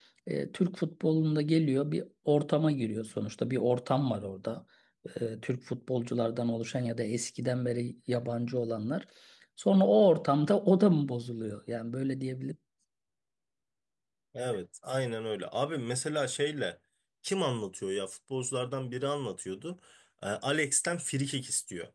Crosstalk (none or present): none